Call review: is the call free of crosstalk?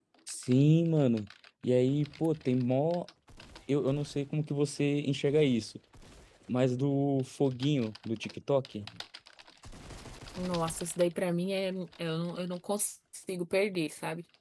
Yes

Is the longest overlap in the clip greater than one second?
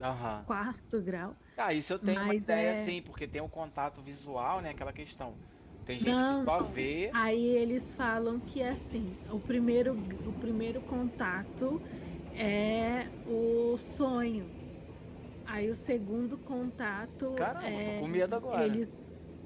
Yes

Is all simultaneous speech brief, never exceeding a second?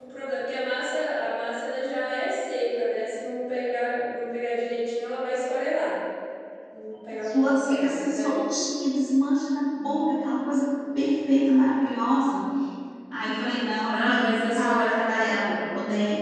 No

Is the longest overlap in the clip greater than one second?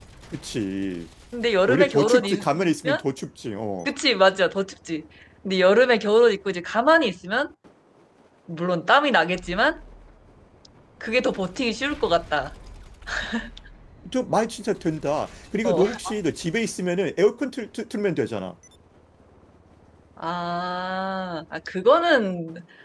Yes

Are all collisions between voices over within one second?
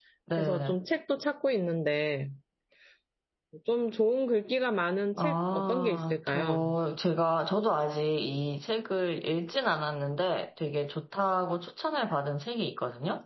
No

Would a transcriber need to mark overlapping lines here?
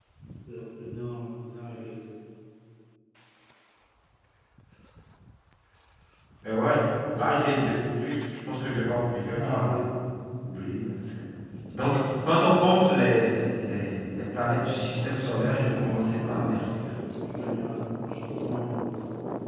Yes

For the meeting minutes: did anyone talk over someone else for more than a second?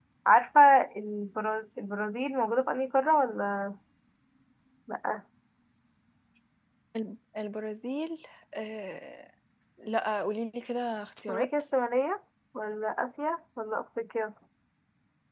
No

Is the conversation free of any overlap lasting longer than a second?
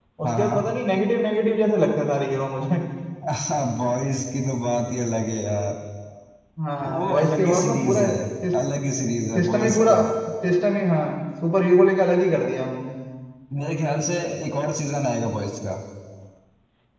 No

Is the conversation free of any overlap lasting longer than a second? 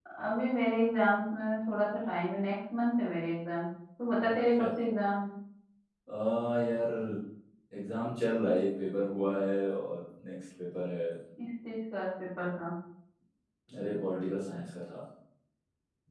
Yes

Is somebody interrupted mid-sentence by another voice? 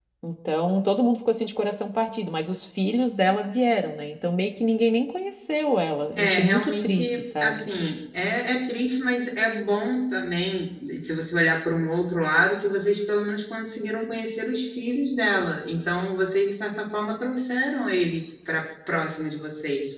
Yes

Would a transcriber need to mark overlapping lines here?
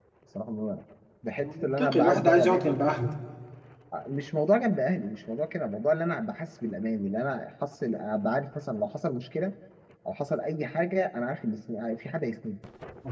Yes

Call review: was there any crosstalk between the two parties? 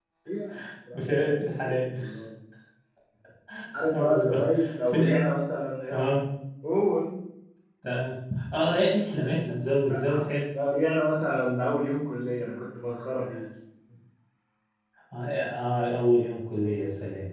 Yes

